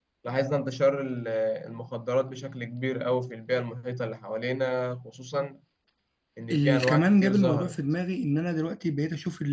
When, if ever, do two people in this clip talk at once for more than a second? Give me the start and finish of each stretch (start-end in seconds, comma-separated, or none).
6.5-7.8